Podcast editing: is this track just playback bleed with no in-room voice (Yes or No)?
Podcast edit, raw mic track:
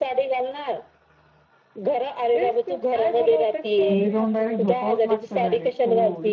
No